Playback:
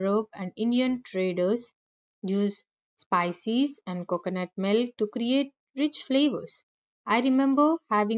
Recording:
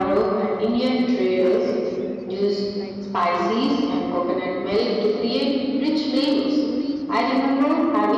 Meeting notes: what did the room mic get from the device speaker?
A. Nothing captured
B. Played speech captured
B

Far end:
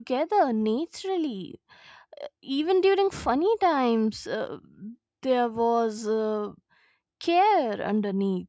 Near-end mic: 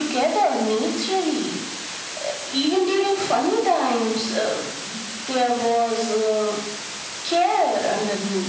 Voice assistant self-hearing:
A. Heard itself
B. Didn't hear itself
A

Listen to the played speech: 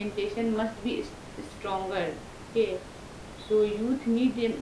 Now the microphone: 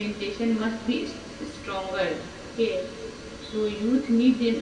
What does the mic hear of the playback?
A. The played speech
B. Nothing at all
A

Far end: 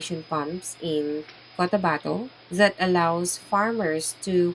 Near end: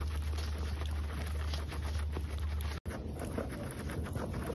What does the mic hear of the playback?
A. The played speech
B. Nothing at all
B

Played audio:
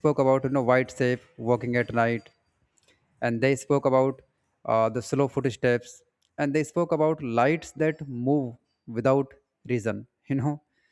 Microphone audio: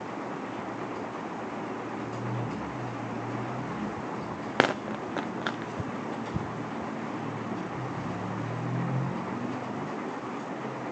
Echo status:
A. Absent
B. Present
A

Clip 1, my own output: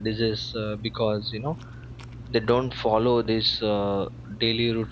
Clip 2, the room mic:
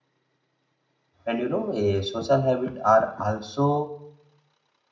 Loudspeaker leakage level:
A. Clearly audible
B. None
B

